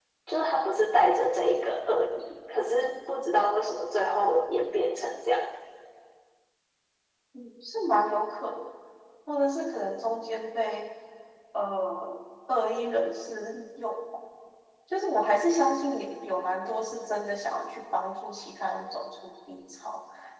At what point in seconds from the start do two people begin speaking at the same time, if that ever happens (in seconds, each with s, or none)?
none